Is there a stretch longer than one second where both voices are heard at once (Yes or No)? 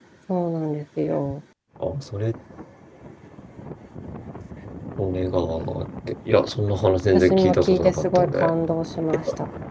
Yes